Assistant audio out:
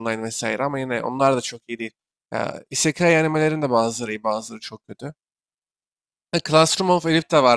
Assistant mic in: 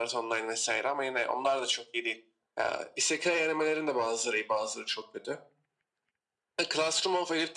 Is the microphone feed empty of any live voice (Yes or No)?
Yes